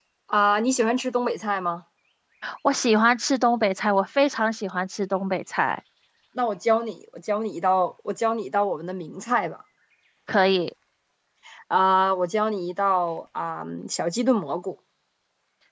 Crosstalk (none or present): none